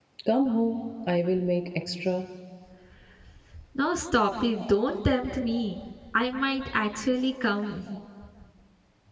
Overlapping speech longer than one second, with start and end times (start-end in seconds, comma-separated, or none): none